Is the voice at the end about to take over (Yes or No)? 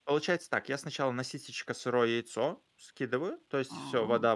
No